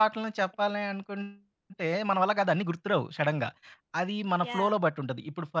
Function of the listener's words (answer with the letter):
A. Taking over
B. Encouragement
B